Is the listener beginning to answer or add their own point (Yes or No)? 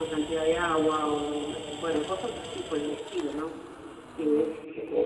No